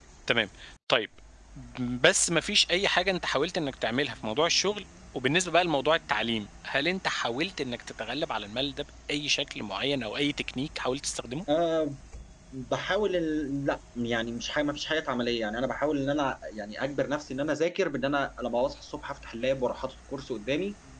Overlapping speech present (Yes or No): No